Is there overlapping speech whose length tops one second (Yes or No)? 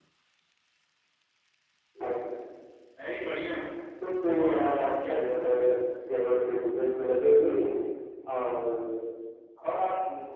Yes